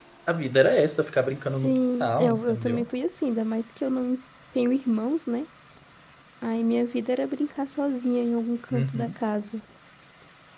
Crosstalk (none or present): present